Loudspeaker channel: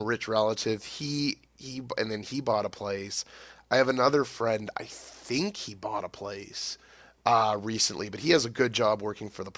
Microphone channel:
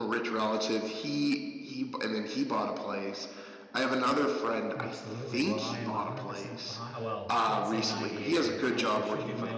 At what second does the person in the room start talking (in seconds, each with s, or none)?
4.8 s